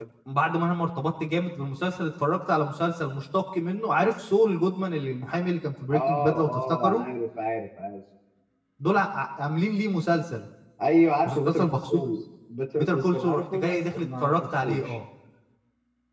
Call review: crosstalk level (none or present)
present